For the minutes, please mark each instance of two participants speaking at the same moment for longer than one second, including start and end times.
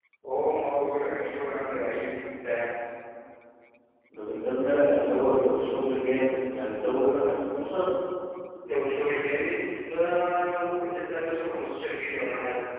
none

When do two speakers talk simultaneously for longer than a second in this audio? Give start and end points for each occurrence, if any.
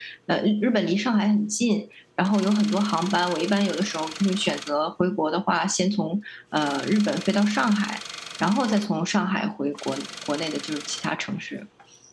none

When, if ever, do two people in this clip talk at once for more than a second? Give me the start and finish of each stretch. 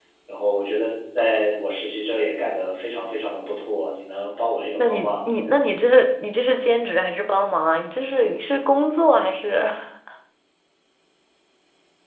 none

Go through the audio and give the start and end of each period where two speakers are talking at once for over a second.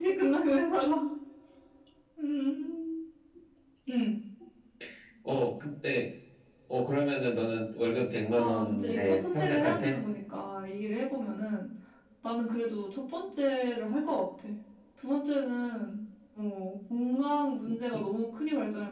8.4-10.0

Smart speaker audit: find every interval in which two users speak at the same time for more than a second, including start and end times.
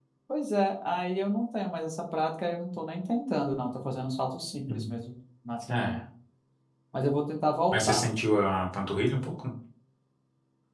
none

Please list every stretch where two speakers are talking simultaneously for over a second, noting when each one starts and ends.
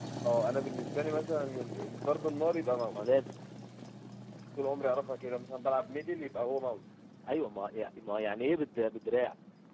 none

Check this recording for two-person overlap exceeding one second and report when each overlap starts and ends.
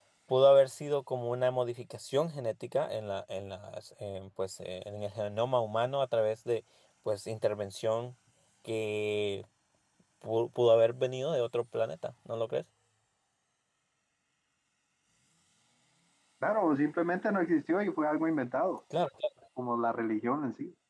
none

